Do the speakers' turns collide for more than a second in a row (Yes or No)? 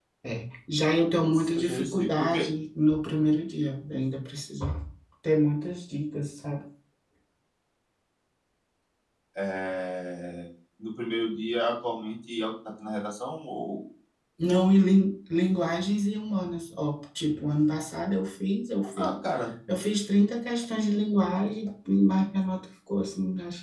Yes